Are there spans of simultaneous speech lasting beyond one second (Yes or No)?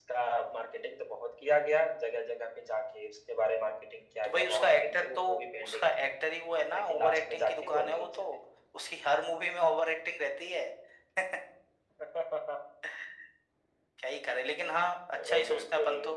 Yes